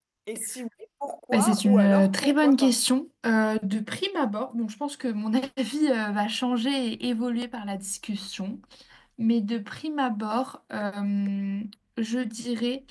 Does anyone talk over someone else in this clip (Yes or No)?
Yes